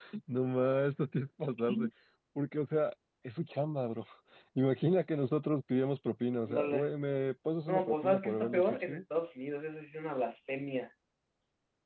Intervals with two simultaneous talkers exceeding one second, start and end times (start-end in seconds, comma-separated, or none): 7.7-9.0